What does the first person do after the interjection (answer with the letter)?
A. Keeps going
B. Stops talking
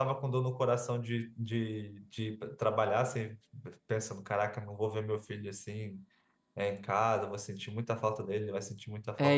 B